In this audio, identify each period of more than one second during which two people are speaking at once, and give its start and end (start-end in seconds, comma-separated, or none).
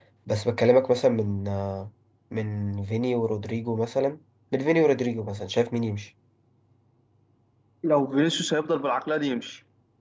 none